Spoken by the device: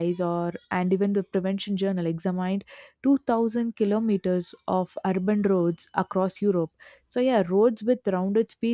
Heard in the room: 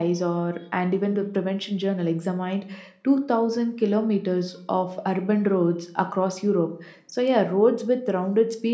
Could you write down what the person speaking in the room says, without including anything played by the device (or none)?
none